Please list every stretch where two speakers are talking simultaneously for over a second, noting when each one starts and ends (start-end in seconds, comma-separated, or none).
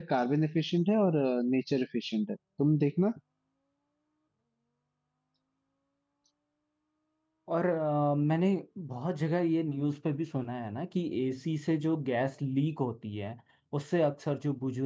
none